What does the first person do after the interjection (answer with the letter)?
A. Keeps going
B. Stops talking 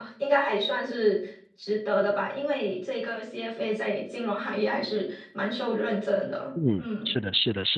B